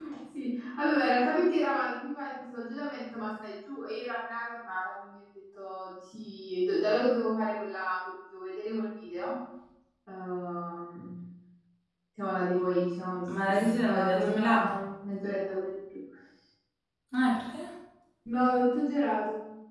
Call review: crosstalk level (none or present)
present